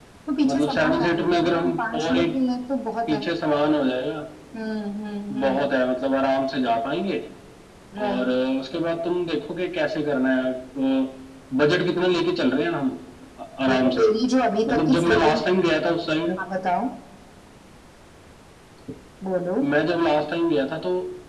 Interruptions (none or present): present